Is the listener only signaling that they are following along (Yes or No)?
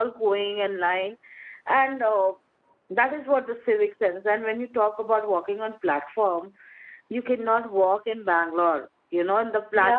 No